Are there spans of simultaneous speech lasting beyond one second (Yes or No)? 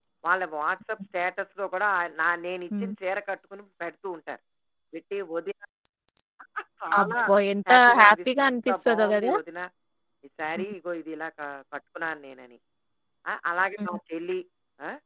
Yes